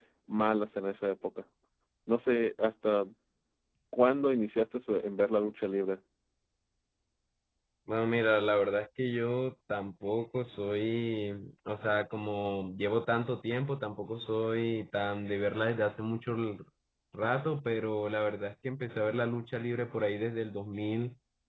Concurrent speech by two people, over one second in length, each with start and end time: none

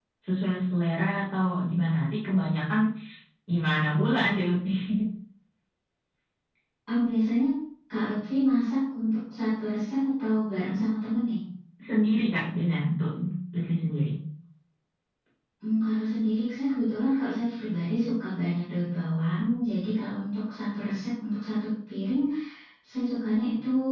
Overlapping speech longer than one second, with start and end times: none

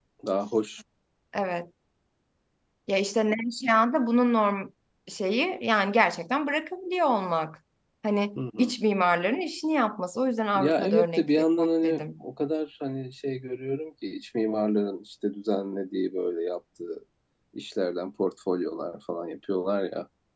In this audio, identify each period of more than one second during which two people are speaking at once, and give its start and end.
10.6-12.0

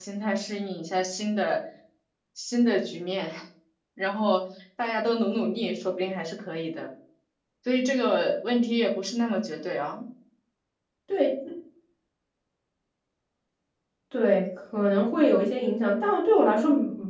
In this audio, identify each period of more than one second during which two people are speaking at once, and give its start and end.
none

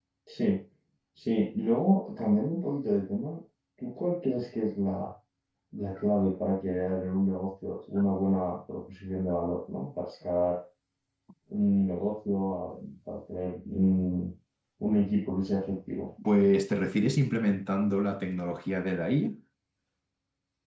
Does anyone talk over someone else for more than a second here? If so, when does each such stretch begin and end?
none

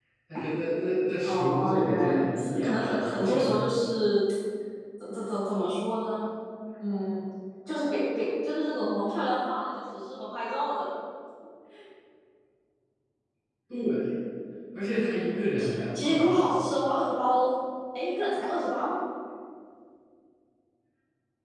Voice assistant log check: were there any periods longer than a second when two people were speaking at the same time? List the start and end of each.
1.2-3.5, 15.1-16.7

